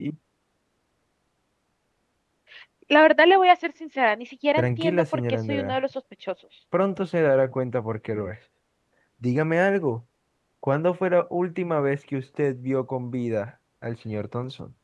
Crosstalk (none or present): present